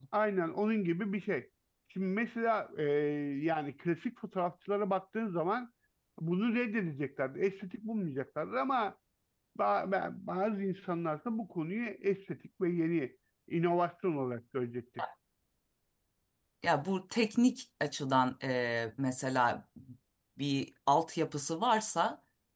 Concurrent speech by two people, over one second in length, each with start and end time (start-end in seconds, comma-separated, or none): none